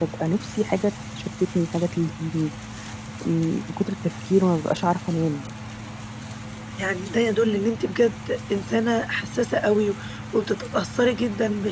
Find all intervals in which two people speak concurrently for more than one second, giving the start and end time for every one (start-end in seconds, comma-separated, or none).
none